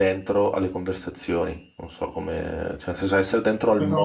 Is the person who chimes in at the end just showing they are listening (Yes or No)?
Yes